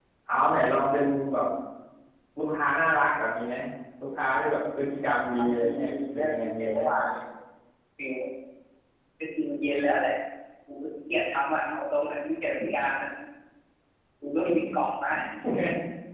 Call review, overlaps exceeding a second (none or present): present